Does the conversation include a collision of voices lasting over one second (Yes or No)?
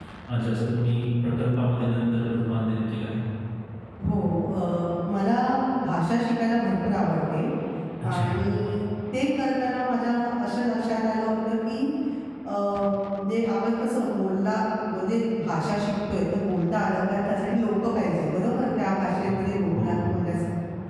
No